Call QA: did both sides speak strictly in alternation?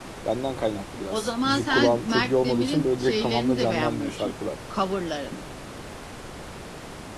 No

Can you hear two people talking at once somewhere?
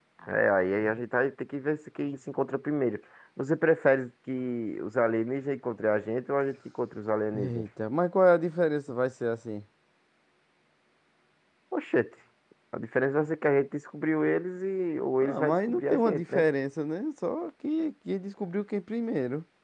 Yes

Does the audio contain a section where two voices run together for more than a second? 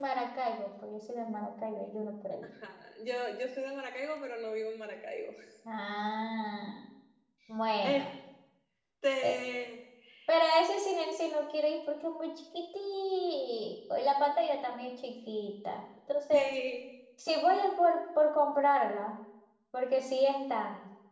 No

